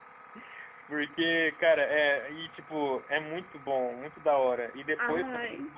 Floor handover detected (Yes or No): No